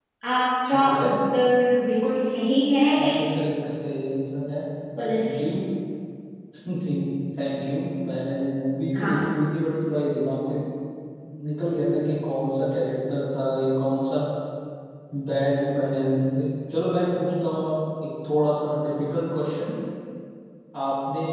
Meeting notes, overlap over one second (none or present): none